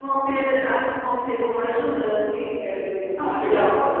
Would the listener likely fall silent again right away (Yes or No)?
No